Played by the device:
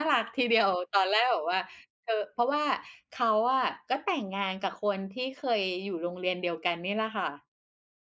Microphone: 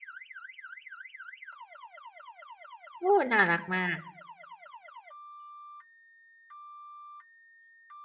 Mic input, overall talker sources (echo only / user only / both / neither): user only